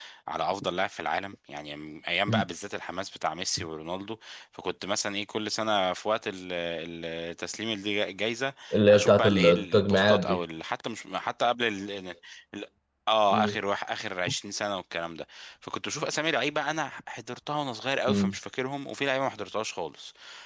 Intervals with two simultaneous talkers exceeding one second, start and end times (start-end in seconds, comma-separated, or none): 8.9-10.4